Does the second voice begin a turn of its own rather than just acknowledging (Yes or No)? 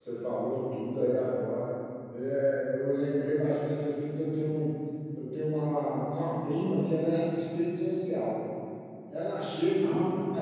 No